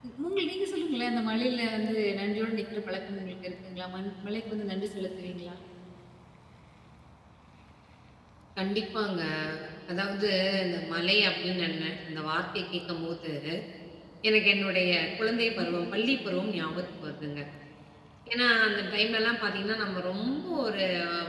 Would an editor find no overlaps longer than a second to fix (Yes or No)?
Yes